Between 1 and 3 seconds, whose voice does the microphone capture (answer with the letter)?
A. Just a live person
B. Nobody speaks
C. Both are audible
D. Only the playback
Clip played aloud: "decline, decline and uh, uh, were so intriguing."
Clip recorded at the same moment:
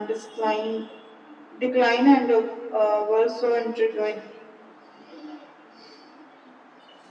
D